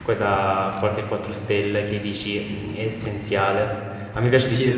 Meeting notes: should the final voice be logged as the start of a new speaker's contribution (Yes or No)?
No